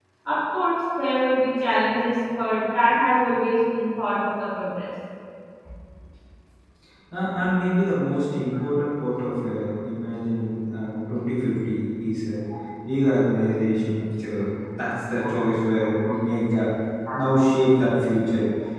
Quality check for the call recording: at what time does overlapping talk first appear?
none

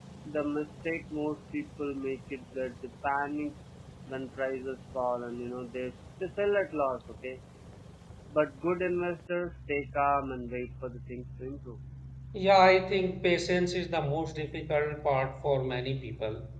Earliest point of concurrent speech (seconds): none

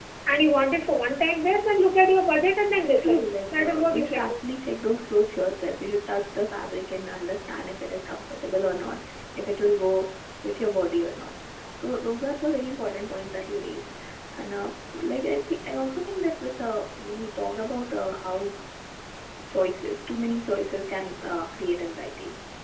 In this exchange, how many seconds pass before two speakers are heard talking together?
2.8 s

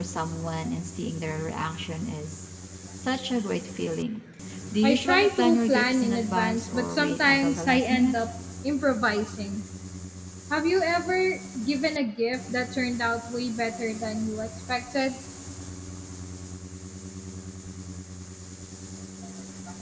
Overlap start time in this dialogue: 4.8 s

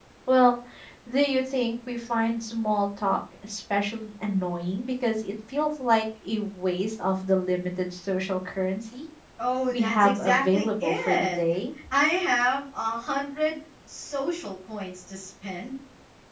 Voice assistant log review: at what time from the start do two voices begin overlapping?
9.7 s

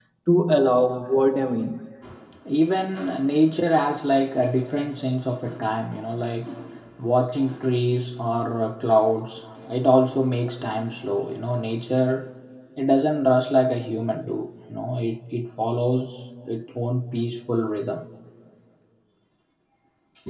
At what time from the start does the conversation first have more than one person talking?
none

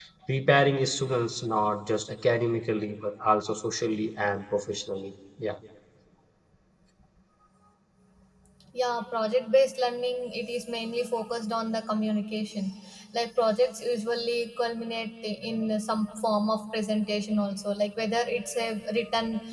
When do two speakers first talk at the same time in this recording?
none

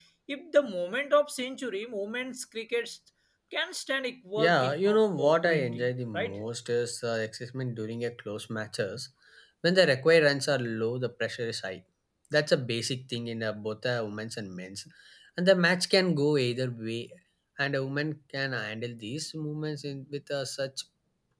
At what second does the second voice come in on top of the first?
4.4 s

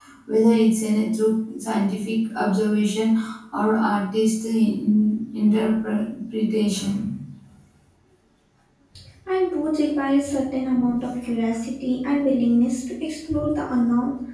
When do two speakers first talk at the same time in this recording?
none

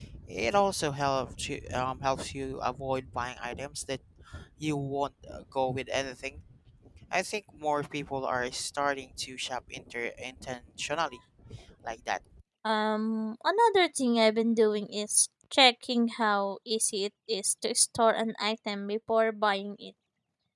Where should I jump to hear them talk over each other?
none

